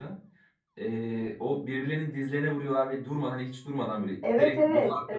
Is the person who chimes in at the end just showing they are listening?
No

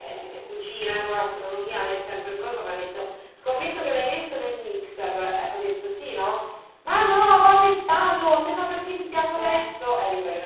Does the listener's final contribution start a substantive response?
No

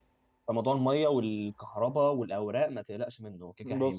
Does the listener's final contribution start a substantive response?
Yes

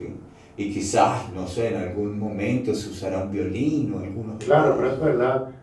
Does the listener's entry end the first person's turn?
Yes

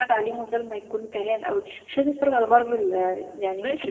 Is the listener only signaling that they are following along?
No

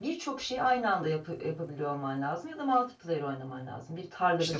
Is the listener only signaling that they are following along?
No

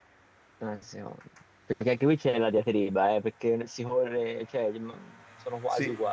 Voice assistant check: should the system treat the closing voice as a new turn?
Yes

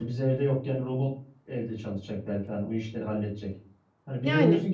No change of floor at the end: Yes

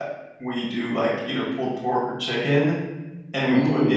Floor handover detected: No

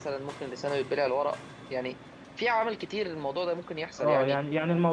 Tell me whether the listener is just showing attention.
No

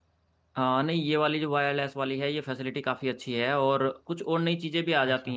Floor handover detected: No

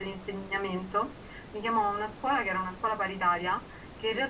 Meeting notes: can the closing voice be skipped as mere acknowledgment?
Yes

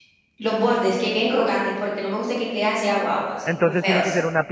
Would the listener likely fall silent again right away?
No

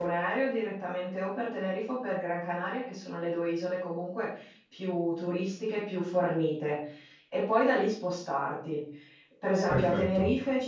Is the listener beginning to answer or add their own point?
No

